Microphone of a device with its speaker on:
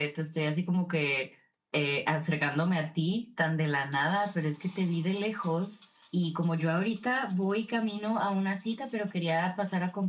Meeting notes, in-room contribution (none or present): none